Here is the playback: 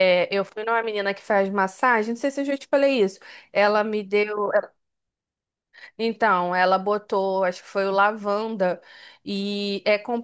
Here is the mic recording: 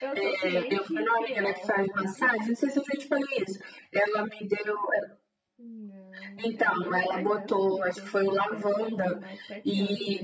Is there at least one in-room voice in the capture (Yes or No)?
Yes